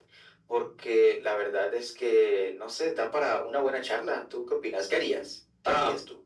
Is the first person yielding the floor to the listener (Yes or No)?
Yes